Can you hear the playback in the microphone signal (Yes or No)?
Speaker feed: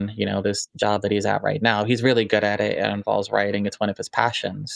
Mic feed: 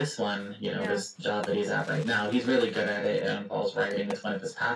Yes